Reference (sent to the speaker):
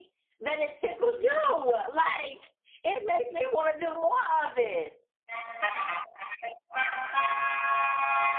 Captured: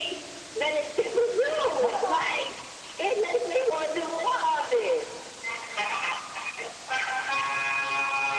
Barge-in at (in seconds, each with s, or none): 1.8 s